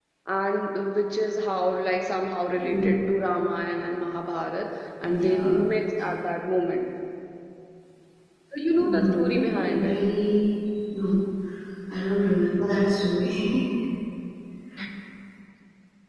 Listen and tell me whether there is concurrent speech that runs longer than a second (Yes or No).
Yes